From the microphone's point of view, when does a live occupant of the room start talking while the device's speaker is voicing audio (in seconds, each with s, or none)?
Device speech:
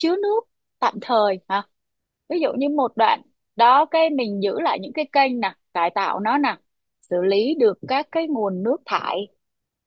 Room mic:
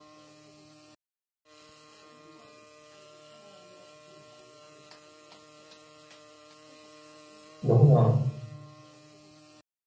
7.6 s